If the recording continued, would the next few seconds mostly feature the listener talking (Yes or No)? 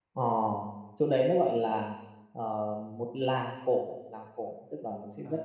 No